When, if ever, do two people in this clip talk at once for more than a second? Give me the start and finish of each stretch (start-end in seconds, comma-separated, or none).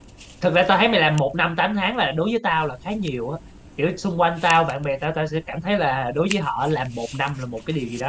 none